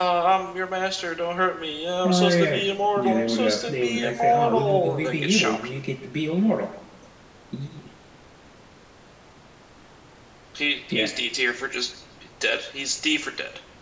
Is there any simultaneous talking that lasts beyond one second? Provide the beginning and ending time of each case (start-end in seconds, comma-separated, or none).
3.0-5.7